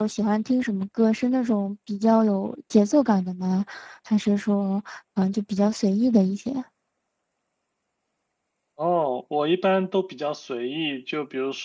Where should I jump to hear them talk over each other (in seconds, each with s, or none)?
none